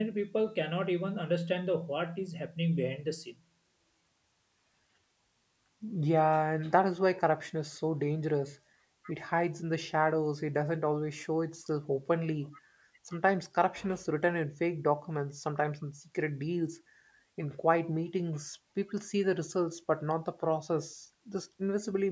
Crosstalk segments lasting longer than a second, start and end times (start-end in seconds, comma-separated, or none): none